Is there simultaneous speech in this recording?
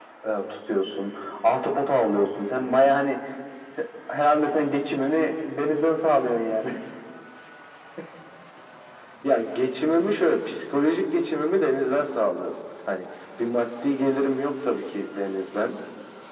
No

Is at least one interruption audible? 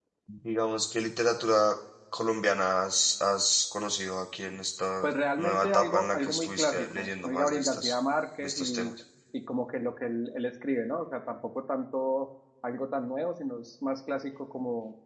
Yes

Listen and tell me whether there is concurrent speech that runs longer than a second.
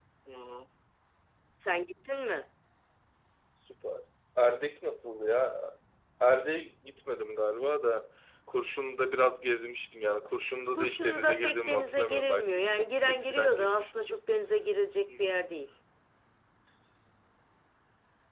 Yes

